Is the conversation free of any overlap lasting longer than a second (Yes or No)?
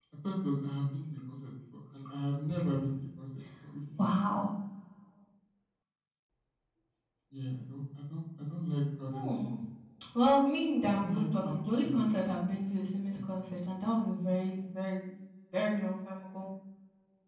No